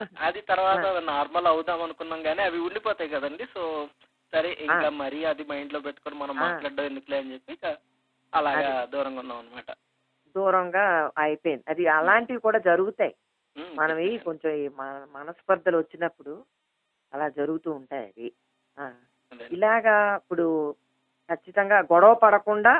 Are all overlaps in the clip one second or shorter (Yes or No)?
Yes